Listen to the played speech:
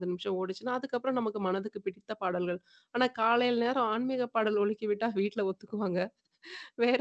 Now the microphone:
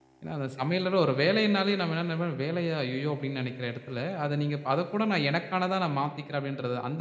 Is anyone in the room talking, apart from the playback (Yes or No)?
Yes